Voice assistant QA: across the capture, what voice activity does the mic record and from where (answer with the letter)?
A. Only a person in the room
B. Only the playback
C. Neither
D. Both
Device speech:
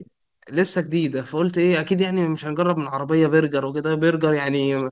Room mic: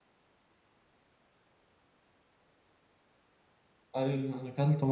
A